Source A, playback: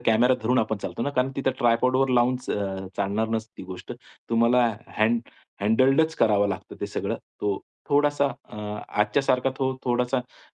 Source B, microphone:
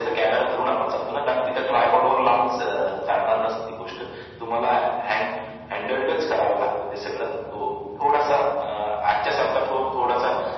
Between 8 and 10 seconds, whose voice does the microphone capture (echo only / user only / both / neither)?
echo only